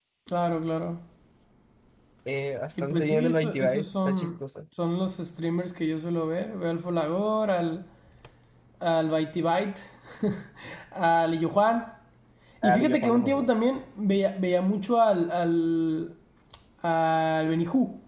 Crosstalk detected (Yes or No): Yes